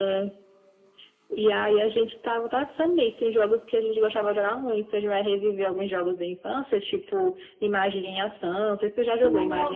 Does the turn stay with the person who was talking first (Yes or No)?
No